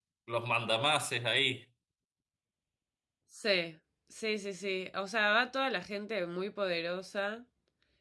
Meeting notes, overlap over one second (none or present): none